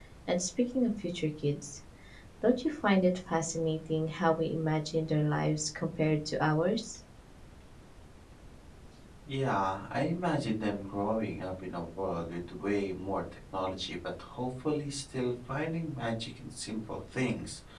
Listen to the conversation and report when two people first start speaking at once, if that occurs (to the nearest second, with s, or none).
none